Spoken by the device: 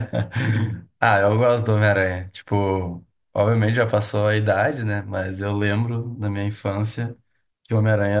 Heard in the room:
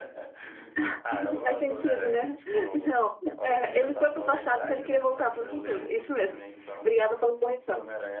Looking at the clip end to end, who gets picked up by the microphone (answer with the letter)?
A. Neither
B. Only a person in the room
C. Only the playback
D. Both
D